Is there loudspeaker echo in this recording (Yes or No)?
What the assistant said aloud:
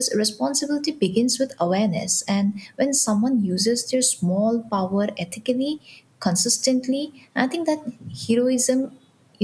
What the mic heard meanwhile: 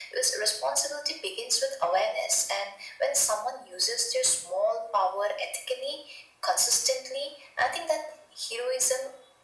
Yes